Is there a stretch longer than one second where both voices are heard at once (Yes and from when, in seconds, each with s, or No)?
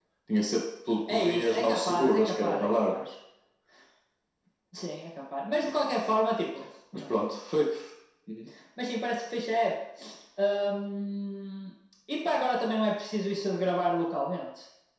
Yes, from 1.1 s